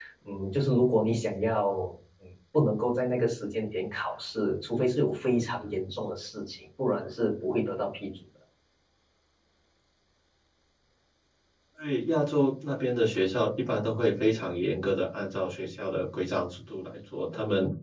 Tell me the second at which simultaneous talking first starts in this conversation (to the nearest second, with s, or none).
none